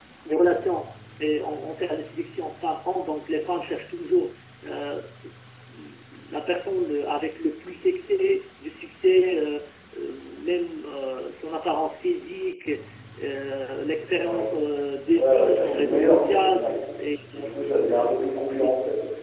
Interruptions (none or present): present